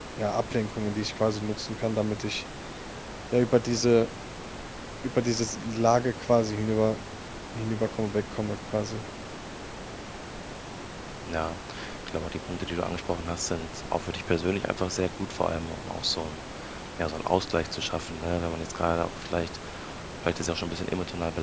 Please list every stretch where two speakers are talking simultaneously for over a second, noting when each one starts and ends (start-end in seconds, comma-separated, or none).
none